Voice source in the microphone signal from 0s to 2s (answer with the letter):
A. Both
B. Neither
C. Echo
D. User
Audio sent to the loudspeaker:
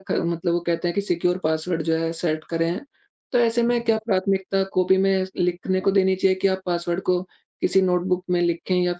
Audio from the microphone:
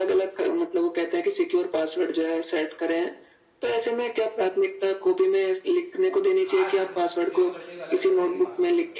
C